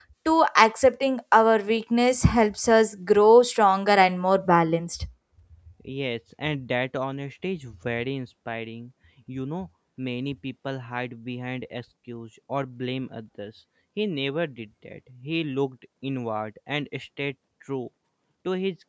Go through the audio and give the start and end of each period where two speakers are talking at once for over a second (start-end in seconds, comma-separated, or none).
none